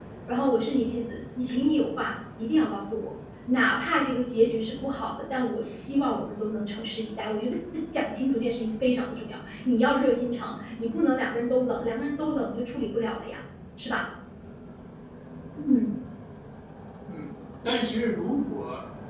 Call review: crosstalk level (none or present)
none